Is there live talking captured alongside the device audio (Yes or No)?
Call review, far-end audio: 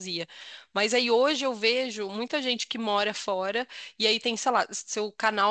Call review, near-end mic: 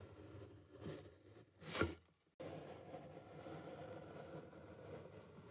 No